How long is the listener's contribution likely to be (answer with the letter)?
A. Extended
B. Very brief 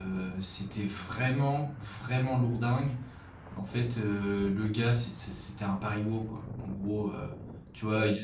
B